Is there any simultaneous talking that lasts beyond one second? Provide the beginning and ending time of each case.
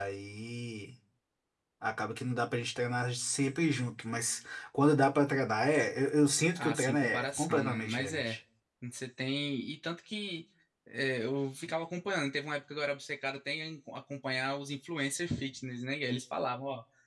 6.5-8.4

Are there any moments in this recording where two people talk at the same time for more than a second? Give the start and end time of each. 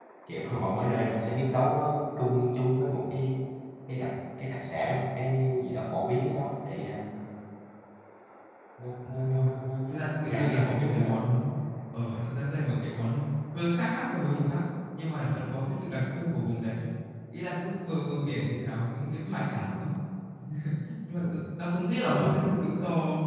9.9-11.4

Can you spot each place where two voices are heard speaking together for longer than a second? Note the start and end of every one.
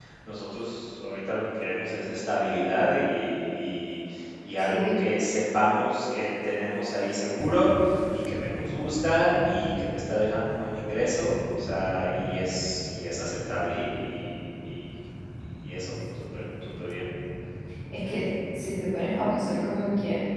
none

